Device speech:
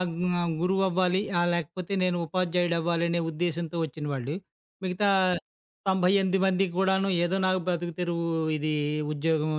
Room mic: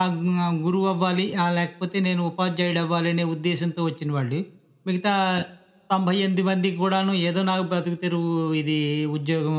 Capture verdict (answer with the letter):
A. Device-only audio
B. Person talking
A